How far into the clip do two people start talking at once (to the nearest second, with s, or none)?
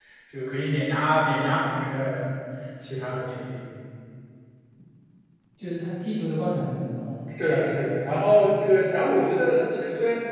none